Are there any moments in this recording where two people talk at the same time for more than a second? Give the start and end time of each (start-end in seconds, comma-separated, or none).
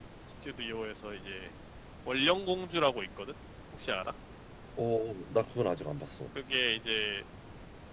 none